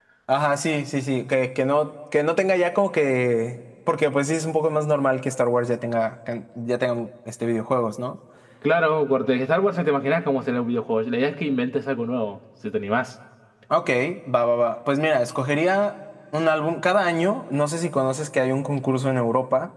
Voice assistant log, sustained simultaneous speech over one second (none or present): none